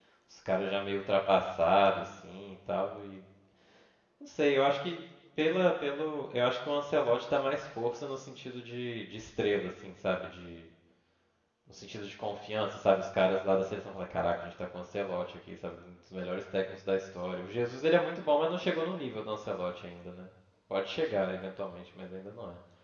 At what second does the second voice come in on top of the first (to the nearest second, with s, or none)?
none